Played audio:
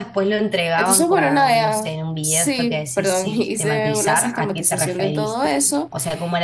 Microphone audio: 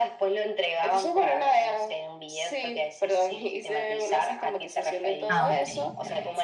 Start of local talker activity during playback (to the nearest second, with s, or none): 5 s